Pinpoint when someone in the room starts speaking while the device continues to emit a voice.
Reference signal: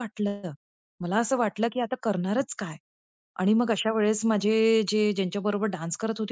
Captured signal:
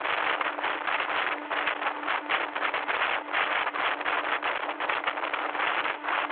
none

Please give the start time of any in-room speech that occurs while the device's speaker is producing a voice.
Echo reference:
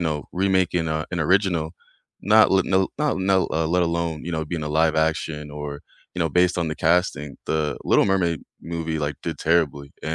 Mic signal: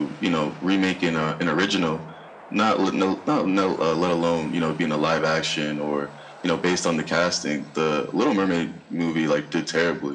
none

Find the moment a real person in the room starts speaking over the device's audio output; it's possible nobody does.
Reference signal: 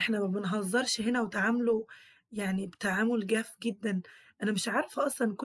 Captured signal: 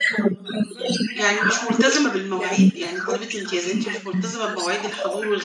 1.1 s

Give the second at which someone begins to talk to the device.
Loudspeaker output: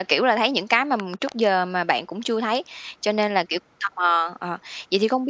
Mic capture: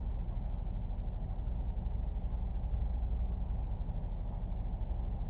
none

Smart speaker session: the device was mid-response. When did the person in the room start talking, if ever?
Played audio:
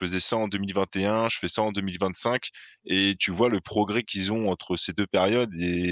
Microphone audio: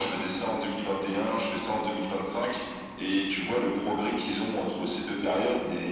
none

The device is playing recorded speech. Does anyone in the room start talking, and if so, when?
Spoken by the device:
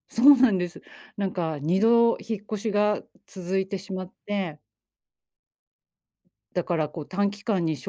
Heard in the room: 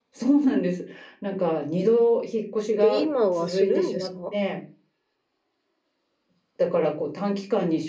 2.8 s

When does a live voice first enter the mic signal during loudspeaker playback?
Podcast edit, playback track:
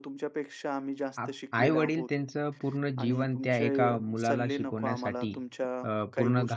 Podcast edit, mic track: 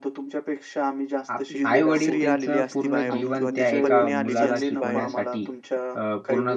1.6 s

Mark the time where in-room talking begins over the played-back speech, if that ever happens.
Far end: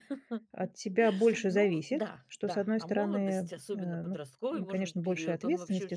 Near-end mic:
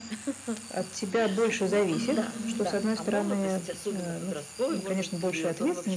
1.9 s

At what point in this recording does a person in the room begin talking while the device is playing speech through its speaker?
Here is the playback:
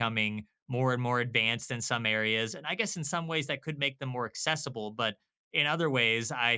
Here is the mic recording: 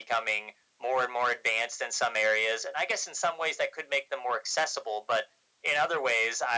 none

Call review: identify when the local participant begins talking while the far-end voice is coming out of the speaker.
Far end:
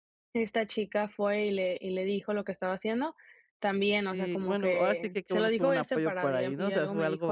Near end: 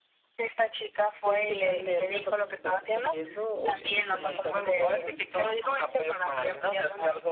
1.2 s

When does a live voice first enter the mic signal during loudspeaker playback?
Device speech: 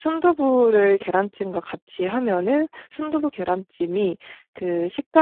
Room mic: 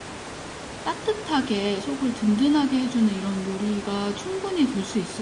0.8 s

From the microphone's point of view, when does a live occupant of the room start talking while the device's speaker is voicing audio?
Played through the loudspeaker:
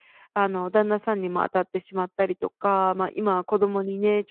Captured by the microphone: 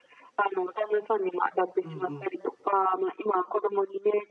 1.8 s

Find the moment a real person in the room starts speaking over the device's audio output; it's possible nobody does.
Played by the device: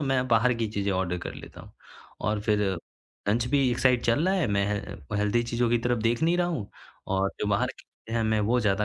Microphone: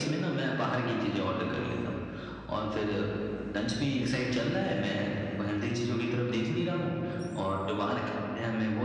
1.5 s

